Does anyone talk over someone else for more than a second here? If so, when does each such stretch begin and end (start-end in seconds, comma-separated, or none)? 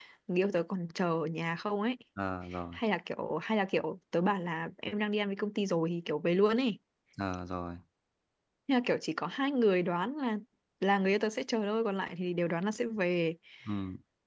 none